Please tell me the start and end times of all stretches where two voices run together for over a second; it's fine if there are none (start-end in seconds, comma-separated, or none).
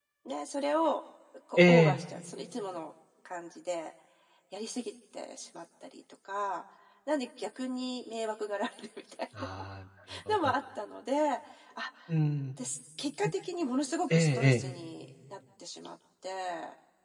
none